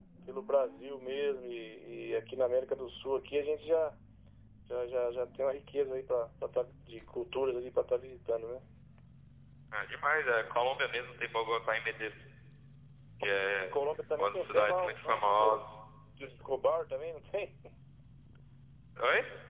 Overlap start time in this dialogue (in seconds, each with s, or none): 14.2 s